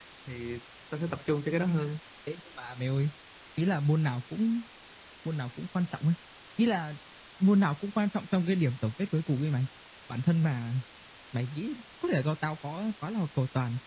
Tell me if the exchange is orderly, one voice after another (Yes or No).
Yes